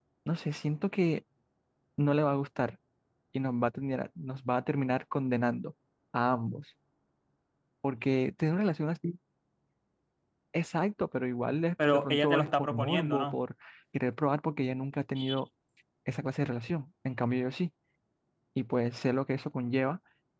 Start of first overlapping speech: 11.8 s

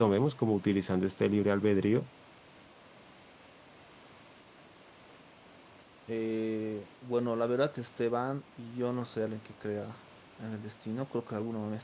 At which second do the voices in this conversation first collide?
none

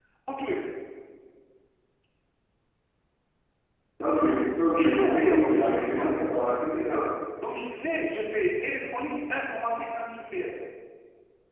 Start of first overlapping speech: 4.7 s

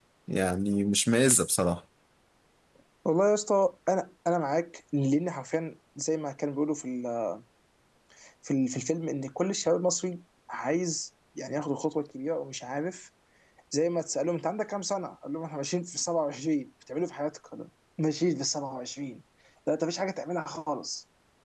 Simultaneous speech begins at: none

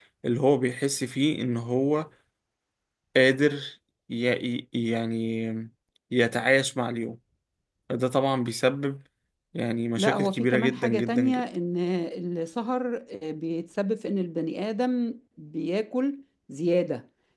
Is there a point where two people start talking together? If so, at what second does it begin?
10.0 s

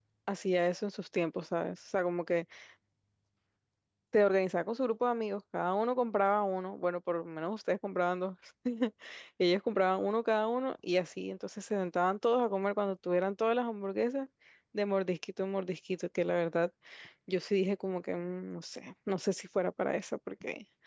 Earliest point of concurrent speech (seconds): none

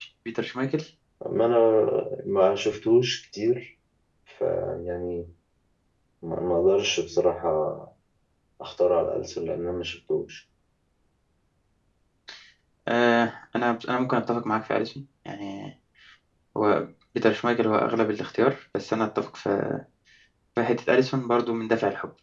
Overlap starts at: none

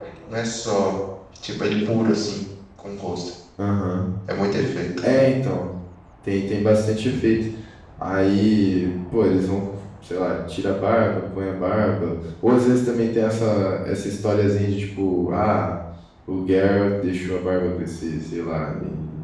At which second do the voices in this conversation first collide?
none

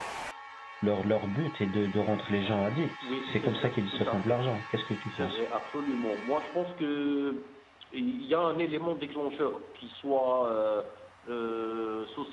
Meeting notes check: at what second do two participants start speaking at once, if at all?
3.0 s

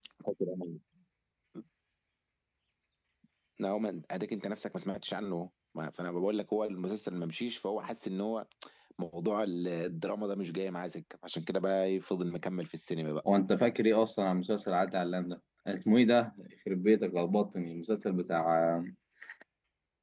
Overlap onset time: none

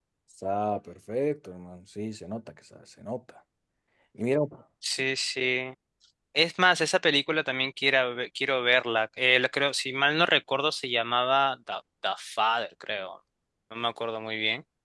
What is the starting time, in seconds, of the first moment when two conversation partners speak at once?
none

